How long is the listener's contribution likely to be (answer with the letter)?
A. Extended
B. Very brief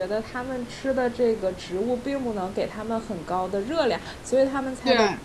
B